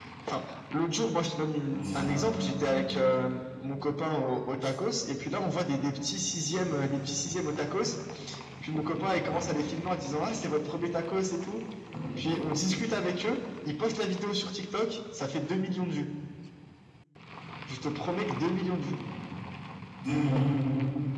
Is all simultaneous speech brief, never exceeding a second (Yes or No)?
Yes